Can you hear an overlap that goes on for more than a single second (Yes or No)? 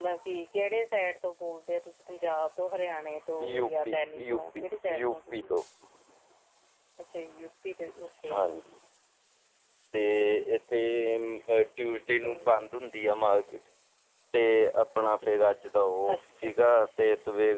Yes